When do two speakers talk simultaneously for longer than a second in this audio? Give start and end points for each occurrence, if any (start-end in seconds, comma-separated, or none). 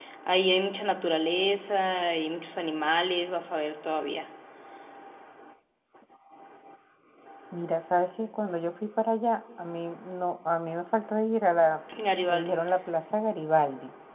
none